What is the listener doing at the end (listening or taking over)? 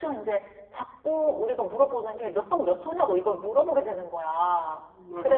listening